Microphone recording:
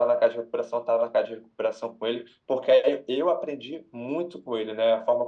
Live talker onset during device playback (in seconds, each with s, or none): none